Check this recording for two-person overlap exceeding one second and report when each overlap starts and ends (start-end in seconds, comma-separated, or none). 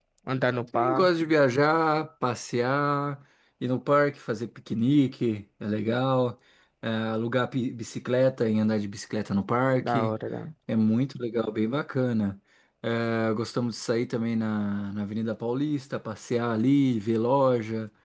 none